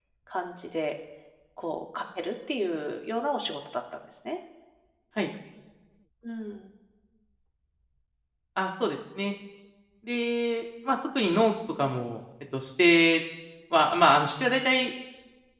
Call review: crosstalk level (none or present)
none